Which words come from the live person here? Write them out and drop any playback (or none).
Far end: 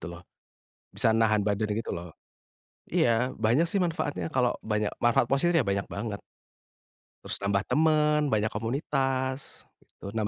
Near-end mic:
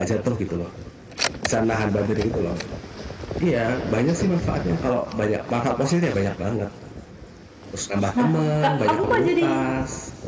Nah, Kak, aku kok jadi